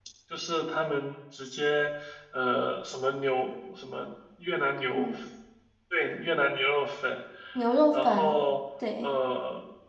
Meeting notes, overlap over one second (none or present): none